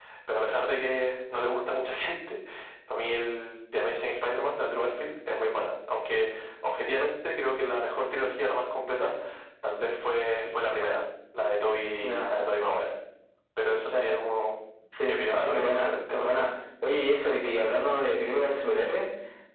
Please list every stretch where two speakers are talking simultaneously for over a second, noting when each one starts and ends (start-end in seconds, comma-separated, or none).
15.1-16.3